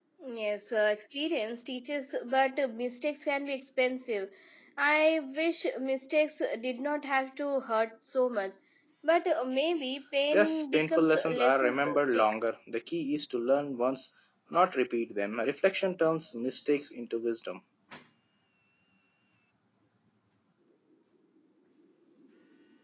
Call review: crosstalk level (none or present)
present